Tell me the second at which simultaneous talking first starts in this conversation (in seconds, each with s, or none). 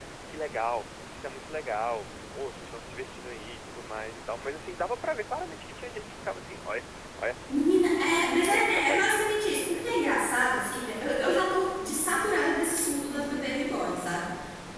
7.5 s